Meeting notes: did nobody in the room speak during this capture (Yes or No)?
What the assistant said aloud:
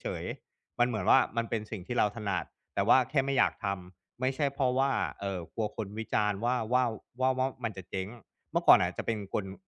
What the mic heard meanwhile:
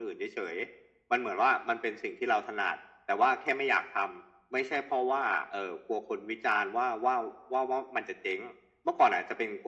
Yes